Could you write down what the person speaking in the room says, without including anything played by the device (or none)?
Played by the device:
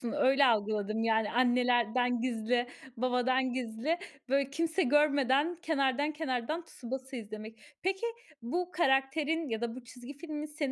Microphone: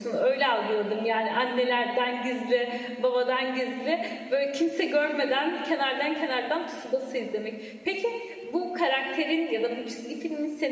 none